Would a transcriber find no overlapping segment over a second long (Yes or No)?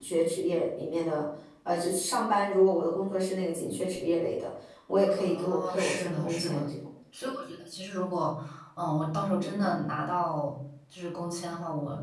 No